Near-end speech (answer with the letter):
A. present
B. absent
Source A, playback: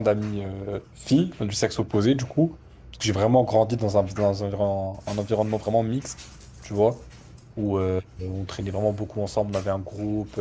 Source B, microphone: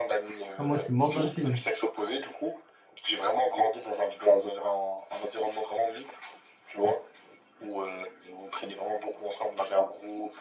A